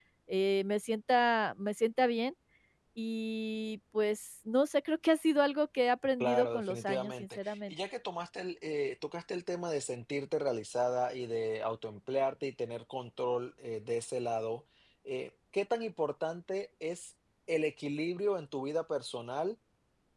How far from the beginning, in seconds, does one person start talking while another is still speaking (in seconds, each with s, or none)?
6.2 s